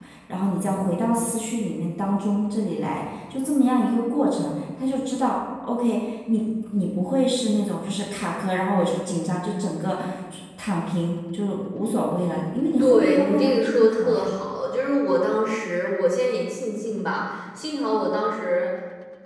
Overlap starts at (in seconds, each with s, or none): 12.8 s